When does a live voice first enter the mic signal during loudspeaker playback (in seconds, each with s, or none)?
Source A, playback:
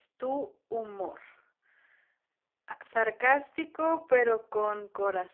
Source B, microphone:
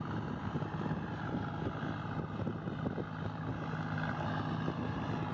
none